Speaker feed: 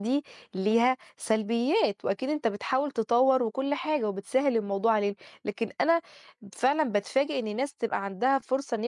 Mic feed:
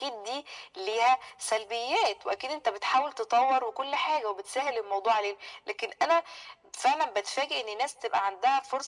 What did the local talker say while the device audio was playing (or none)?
none